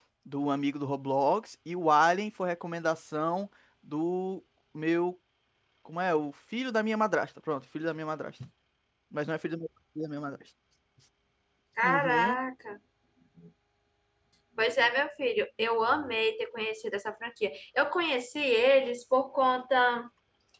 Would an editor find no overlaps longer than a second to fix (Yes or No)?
Yes